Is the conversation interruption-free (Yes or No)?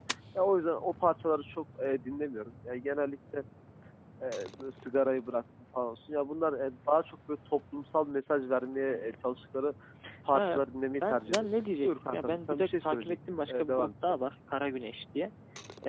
No